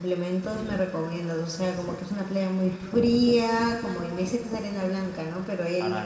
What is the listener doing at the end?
listening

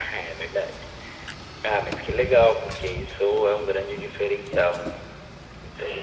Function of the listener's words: listening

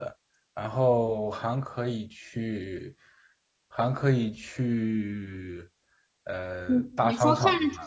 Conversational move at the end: taking over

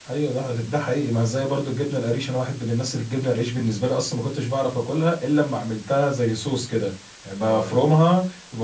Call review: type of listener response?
listening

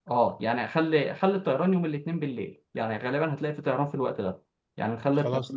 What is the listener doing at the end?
listening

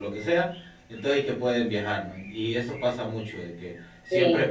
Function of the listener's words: listening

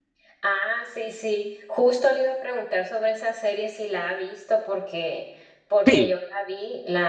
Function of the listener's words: listening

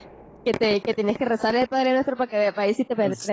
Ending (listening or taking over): taking over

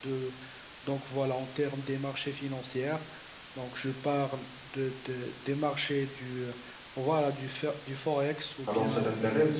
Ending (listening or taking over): taking over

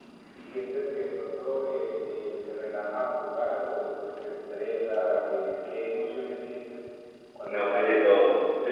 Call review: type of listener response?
taking over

